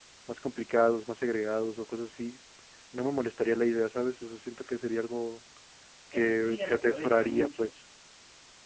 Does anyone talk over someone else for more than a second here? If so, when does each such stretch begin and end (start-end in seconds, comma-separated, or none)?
6.1-7.8